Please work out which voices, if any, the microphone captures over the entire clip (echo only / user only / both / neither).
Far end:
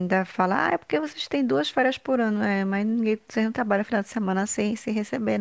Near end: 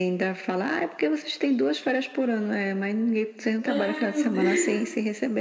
both